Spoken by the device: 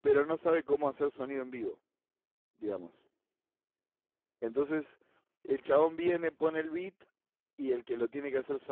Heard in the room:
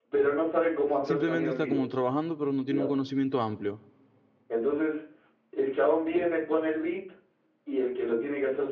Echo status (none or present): present